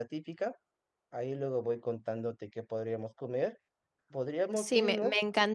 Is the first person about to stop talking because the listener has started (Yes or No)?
Yes